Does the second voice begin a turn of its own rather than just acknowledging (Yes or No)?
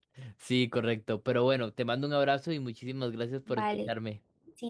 Yes